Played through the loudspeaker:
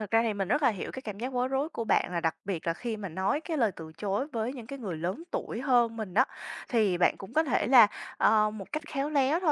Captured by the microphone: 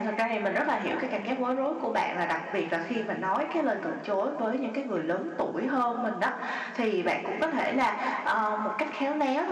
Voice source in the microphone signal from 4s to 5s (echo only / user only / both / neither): echo only